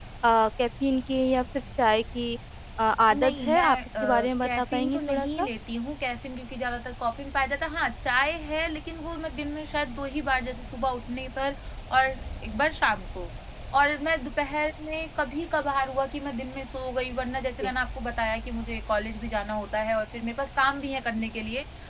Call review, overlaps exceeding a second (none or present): present